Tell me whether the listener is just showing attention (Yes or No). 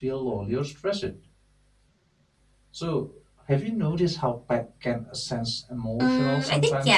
No